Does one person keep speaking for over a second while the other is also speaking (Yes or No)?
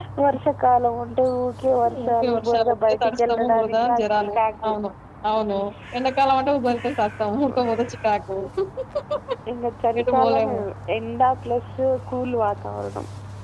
Yes